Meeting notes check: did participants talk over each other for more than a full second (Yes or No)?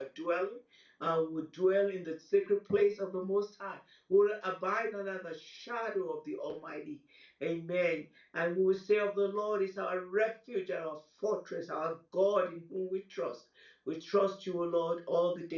No